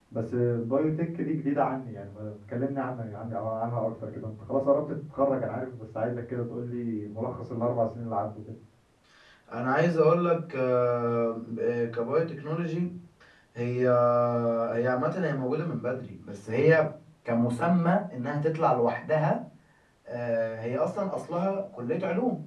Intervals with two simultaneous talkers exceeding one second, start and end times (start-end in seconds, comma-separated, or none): none